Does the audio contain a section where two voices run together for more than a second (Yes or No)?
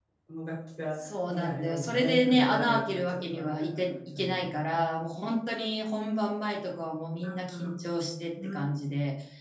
Yes